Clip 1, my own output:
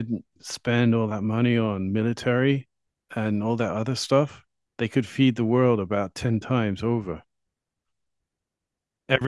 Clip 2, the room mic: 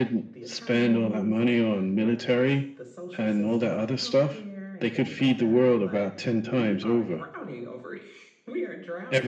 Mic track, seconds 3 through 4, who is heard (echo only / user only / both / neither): both